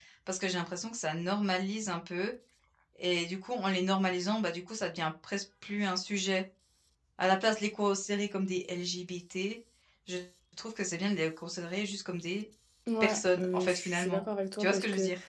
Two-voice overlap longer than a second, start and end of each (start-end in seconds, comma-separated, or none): 13.0-14.2